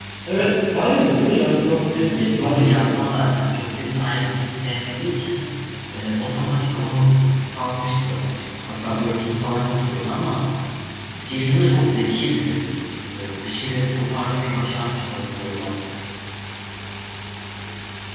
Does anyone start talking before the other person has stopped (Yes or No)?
Yes